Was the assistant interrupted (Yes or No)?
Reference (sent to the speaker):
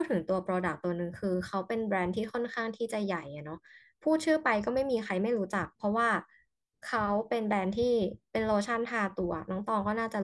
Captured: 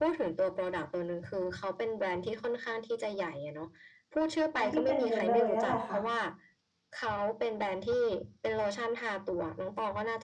Yes